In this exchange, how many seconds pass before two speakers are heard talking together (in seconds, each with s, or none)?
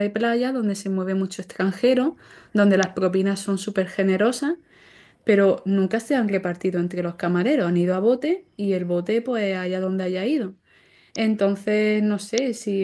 none